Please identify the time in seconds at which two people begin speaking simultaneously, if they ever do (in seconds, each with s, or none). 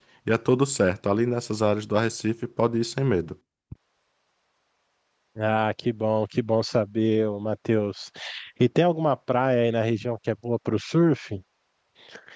none